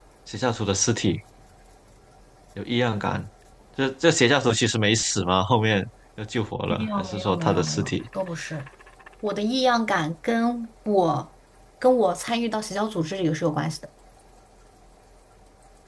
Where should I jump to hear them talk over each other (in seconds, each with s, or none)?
6.7 s